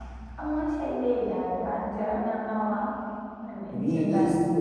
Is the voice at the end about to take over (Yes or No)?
Yes